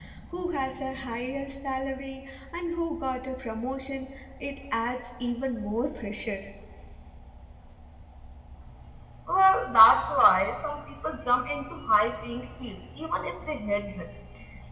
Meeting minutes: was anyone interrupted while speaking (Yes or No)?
No